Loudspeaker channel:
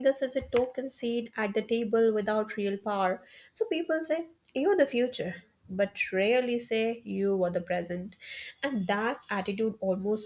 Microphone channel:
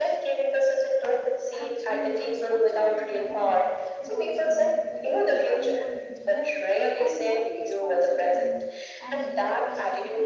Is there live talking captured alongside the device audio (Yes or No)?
Yes